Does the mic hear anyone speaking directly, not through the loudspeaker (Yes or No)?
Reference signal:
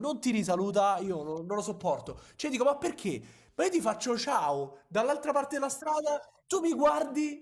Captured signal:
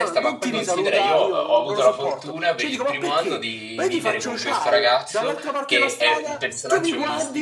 Yes